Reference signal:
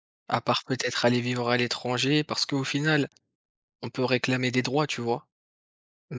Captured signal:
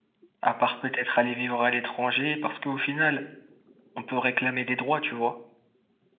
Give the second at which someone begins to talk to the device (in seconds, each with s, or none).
none